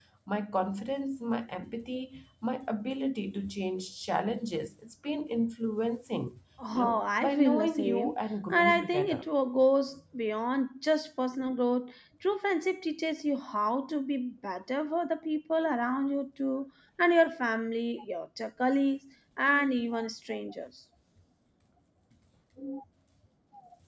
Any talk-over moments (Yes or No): Yes